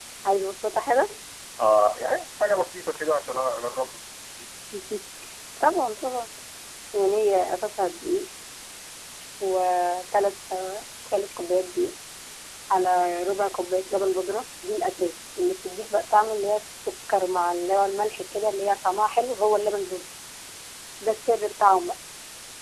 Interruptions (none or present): none